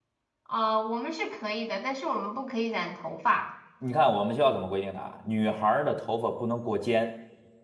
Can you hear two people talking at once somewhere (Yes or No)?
No